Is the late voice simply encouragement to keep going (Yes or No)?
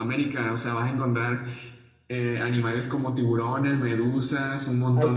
Yes